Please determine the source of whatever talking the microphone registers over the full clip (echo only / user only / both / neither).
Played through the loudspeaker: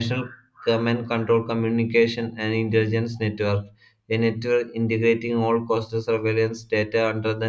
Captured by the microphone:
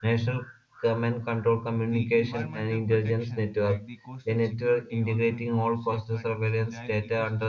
both